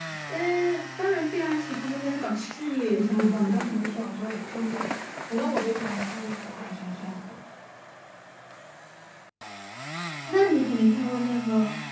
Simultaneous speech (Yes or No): Yes